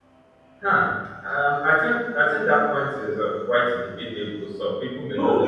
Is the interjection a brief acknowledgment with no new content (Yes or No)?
No